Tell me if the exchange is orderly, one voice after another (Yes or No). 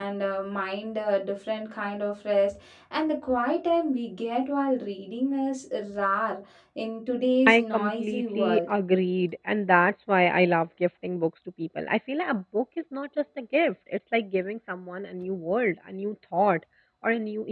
No